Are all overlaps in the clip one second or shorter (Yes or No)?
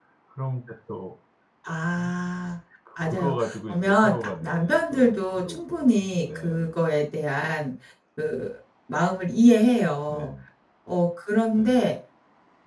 No